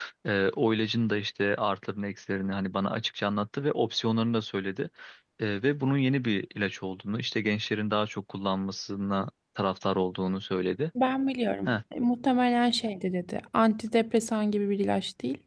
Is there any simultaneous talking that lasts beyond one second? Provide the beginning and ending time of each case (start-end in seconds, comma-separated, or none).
none